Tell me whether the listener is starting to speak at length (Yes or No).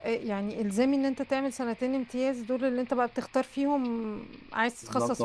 Yes